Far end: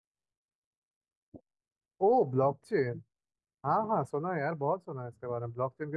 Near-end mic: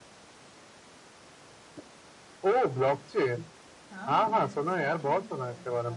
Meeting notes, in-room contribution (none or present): present